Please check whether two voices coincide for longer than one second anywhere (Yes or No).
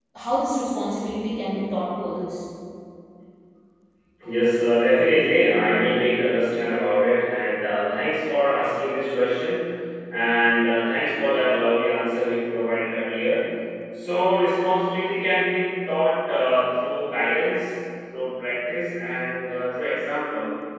No